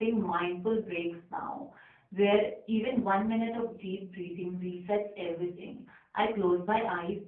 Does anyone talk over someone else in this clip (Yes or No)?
No